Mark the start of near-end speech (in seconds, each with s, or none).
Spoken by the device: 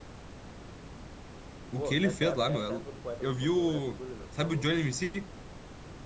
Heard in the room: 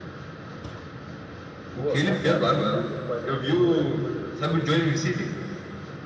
none